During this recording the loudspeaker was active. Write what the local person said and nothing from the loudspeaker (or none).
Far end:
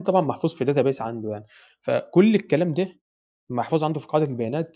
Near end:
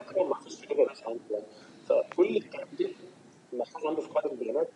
none